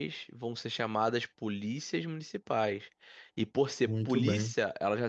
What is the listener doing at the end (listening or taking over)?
listening